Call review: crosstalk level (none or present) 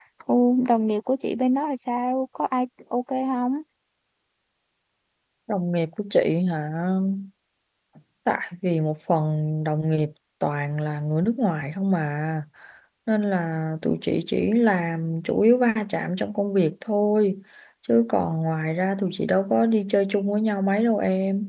none